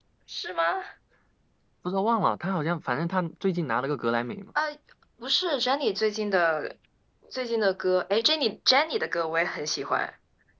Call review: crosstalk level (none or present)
none